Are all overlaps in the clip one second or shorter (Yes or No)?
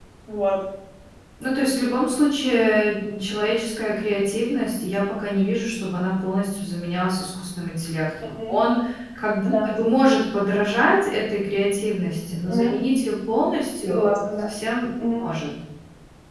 Yes